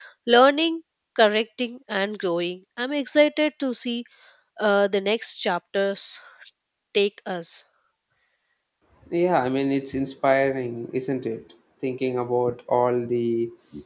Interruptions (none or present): none